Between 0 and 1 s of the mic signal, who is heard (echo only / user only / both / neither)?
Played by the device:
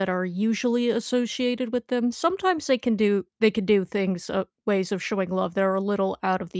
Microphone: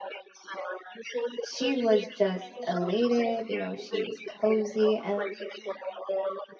echo only